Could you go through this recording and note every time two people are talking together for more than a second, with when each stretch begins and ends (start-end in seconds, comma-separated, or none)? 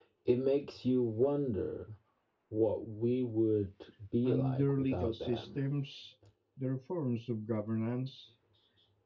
4.2-5.5